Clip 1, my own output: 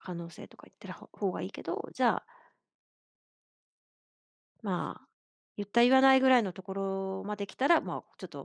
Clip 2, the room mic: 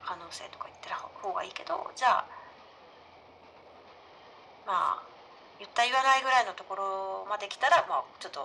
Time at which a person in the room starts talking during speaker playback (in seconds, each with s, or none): none